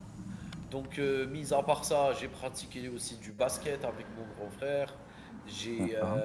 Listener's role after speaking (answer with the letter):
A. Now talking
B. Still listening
B